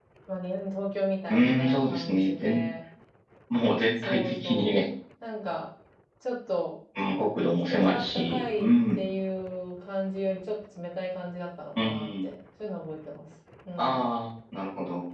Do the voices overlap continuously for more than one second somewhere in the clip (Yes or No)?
Yes